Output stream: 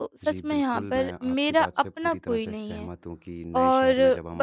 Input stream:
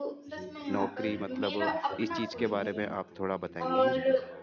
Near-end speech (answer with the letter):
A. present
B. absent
A